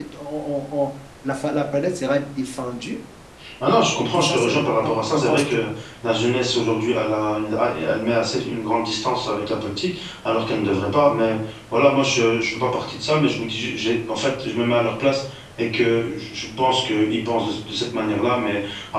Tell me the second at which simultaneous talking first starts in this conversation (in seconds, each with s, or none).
4.1 s